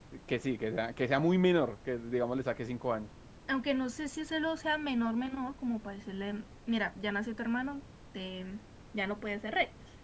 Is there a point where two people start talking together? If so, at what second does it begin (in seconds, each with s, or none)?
none